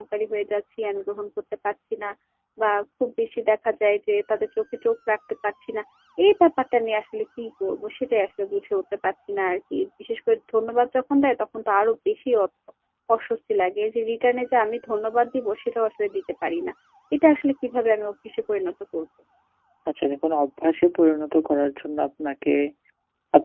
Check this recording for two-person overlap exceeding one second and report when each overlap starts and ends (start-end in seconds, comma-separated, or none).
none